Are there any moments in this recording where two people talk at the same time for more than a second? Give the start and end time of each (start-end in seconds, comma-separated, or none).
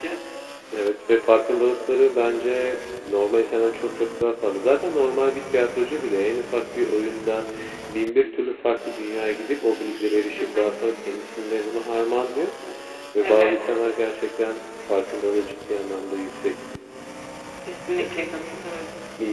none